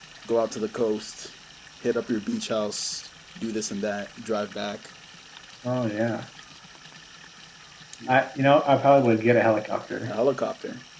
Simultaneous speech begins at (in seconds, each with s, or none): none